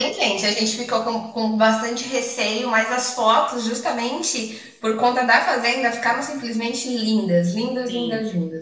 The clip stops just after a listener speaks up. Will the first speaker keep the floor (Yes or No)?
No